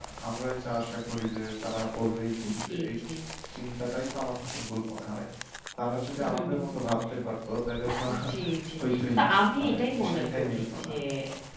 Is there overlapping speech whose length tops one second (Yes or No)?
Yes